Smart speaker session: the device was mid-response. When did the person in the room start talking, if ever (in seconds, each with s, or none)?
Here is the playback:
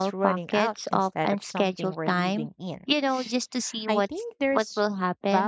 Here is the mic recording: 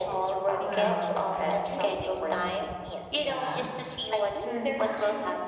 0.6 s